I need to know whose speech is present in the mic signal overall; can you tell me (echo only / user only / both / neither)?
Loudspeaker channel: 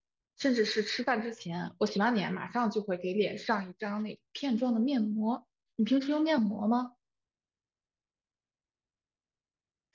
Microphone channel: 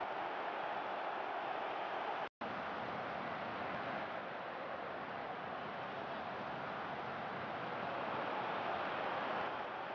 neither